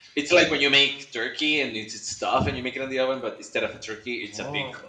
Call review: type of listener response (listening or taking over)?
taking over